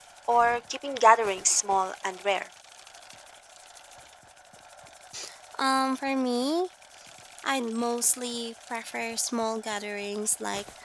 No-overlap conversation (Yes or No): Yes